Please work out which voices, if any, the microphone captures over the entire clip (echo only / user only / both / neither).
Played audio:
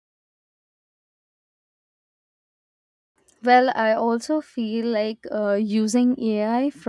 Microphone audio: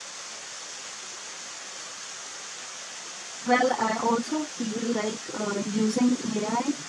echo only